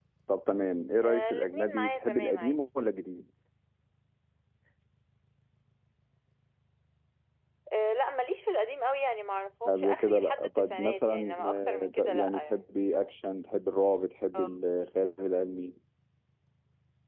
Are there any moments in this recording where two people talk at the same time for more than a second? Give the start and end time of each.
1.0-2.6, 9.7-12.9

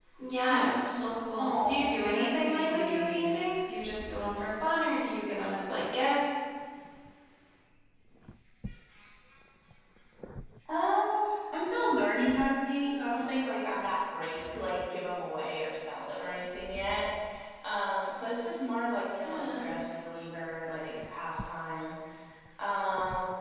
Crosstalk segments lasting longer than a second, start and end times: 1.4-3.3

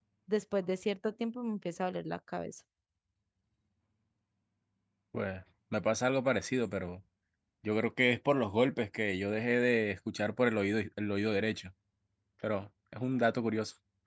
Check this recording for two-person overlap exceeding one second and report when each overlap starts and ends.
none

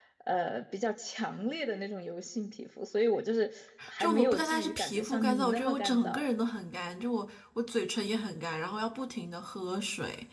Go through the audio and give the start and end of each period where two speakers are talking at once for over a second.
4.0-6.3

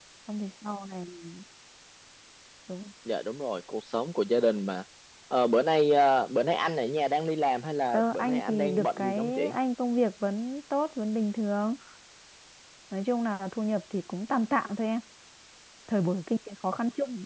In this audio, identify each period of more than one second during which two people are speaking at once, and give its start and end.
7.9-9.5

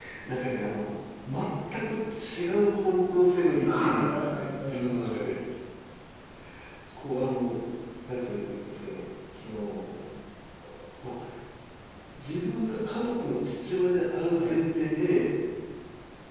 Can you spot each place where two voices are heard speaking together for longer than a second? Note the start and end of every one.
3.6-5.2

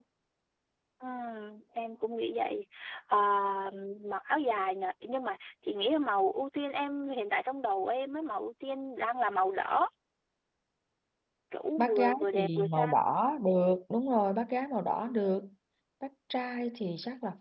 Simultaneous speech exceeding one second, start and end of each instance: 11.8-13.0

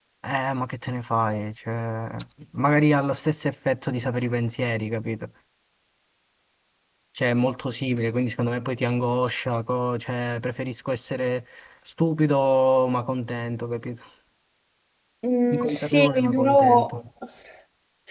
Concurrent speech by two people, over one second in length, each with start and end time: 15.5-17.0

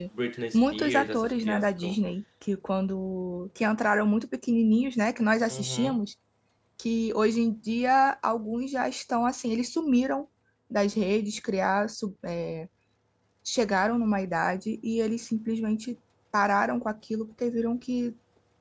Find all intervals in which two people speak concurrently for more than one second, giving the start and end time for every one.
0.5-2.0

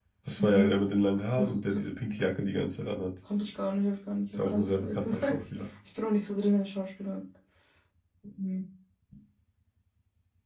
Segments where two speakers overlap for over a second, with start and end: 4.4-5.7

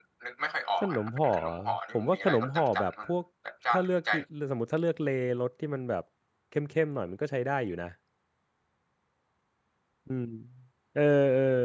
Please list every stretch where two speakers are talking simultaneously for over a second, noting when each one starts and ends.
0.8-2.9

